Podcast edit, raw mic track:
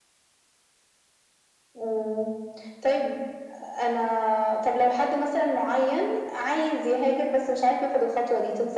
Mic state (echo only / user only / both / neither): echo only